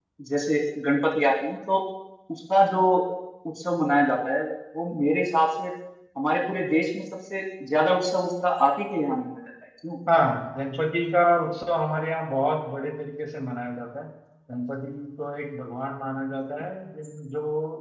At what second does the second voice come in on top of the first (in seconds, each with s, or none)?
none